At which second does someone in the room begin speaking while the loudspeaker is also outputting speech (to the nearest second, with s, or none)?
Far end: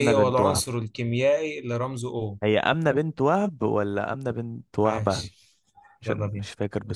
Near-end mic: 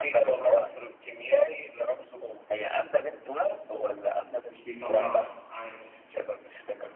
4 s